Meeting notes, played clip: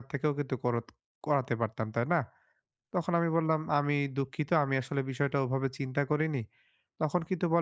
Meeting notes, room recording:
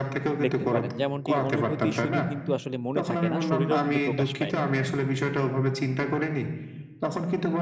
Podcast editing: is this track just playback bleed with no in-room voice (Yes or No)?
No